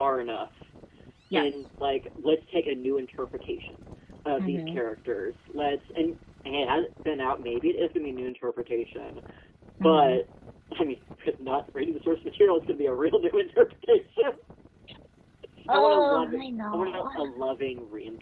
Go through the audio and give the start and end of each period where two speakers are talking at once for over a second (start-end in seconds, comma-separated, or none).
15.7-17.1